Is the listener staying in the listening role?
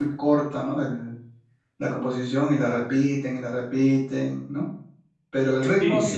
Yes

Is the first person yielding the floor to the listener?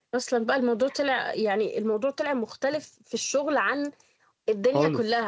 No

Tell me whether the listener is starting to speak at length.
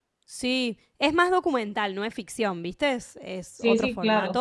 Yes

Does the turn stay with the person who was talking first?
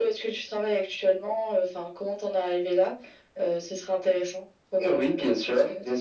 No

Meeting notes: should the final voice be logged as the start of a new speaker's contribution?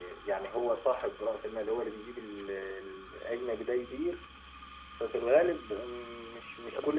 No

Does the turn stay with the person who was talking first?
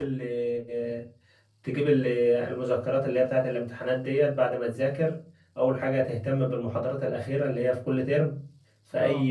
Yes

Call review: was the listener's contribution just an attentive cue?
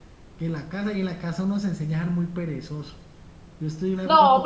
Yes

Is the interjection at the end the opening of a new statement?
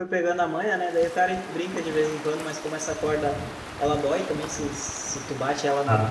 No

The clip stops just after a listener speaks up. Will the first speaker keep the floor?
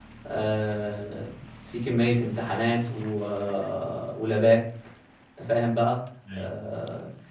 Yes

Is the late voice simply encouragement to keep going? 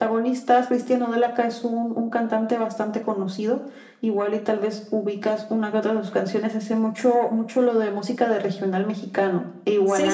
No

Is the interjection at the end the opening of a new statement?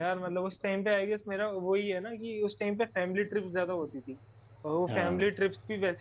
No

